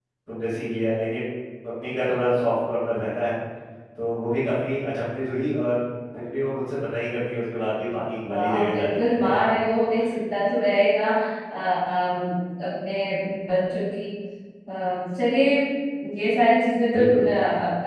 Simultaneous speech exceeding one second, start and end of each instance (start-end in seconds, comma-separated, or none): 8.3-9.6